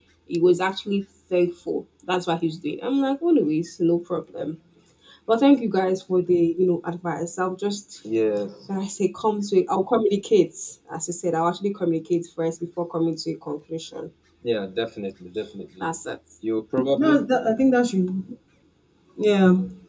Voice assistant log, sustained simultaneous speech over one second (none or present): none